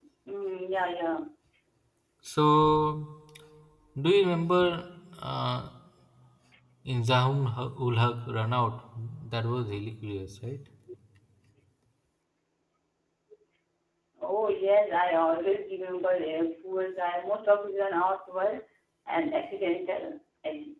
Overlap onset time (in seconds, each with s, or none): none